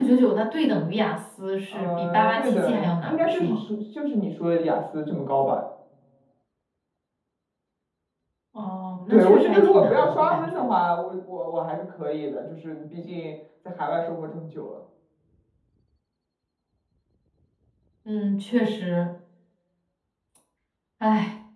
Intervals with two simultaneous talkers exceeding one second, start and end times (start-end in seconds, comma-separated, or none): 1.7-3.6, 9.1-10.7